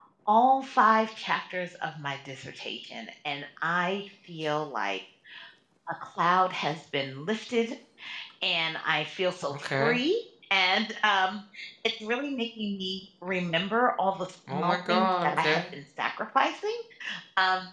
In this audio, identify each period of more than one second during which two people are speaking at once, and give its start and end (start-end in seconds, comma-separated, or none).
14.5-15.7